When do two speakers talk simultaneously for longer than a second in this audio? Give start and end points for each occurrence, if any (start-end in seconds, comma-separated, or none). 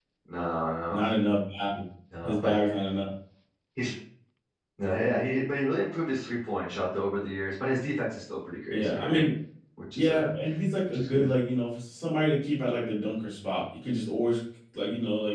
none